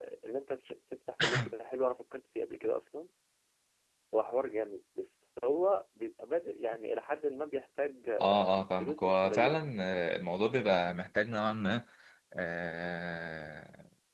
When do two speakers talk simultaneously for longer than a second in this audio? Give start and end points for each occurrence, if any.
8.2-9.6

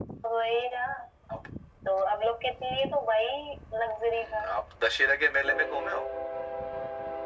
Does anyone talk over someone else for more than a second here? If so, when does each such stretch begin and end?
none

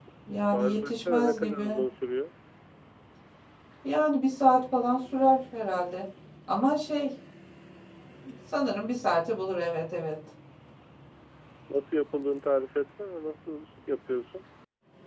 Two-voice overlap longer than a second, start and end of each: 0.5-1.8

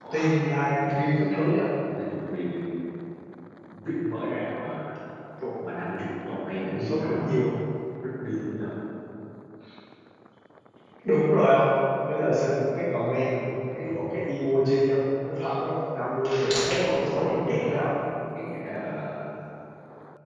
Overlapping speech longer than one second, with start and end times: 16.6-17.9

